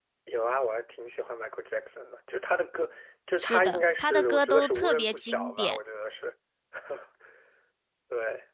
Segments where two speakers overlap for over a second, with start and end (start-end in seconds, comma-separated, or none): 3.4-5.8